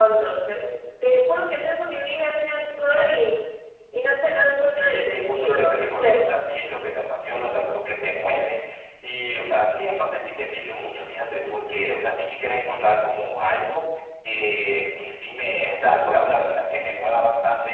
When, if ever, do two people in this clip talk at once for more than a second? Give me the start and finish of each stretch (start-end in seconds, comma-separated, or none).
4.7-6.2